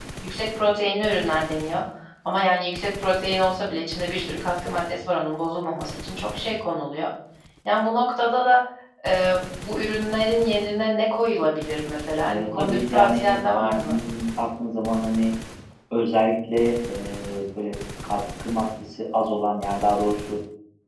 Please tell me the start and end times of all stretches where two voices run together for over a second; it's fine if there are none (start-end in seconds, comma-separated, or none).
12.3-14.0